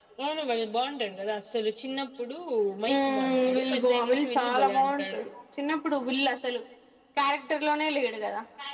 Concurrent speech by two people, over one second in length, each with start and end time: 2.9-5.2

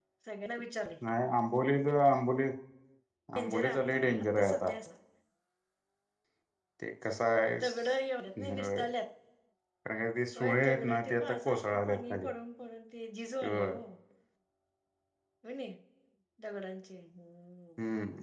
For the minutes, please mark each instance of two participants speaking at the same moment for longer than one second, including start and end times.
3.4-4.7, 10.4-12.2

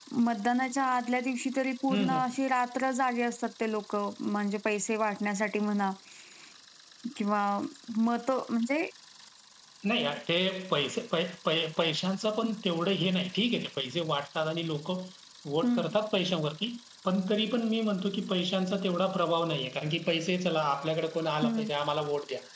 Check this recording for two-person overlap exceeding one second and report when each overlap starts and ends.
none

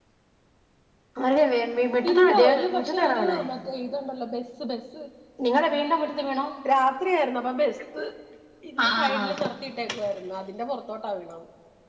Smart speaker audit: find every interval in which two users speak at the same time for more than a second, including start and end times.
2.1-3.4

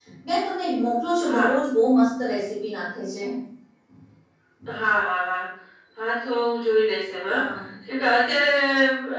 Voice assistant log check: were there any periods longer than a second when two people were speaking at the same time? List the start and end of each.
none

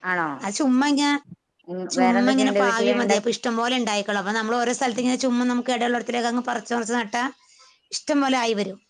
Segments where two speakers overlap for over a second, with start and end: 2.0-3.2

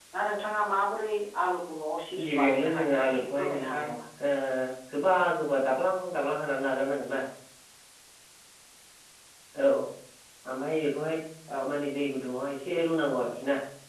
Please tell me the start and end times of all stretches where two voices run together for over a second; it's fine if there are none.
2.4-3.9

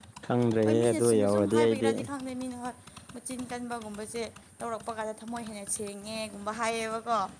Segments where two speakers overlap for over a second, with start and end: 0.7-1.9

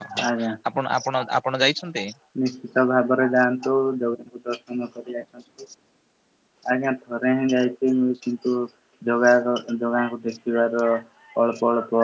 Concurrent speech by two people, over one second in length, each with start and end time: none

